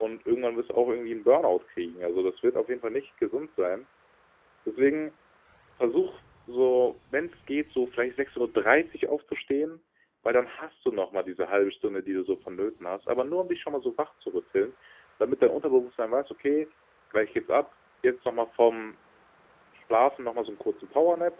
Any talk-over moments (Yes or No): No